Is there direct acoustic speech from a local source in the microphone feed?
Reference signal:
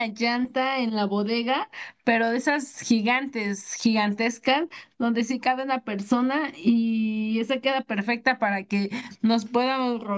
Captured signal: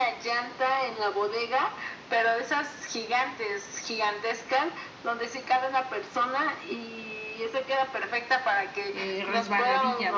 Yes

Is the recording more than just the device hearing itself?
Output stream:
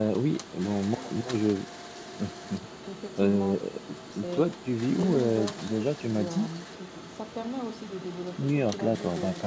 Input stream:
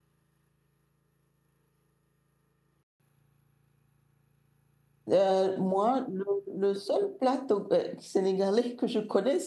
Yes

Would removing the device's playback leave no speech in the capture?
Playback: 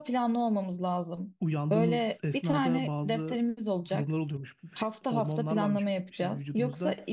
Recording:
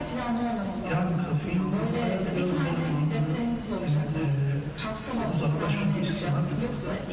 No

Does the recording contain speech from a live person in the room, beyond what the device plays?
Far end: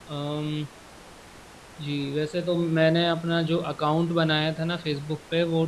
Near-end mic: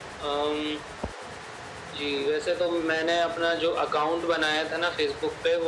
No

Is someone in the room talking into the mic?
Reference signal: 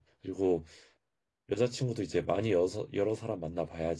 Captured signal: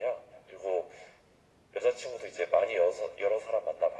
No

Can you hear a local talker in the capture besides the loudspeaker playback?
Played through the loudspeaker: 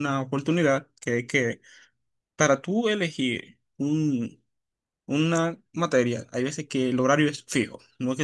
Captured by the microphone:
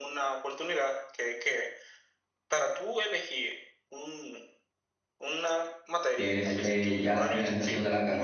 Yes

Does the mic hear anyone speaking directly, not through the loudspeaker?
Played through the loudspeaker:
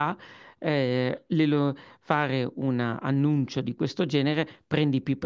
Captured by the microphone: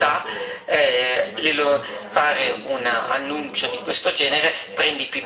Yes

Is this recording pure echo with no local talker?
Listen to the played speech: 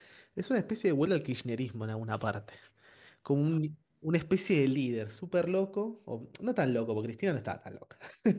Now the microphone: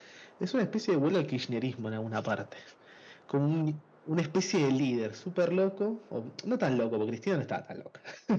Yes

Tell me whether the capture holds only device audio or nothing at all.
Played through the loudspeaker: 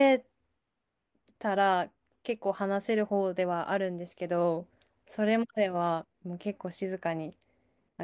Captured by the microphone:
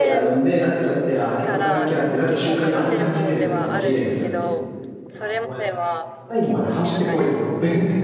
No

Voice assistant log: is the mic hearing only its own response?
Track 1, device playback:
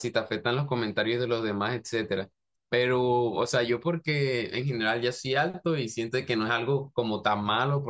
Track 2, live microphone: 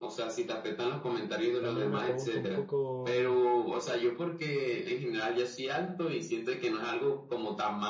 No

